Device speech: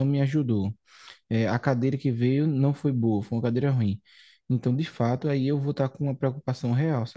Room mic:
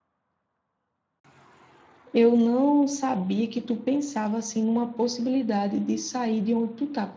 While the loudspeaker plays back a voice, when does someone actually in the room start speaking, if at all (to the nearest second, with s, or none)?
2 s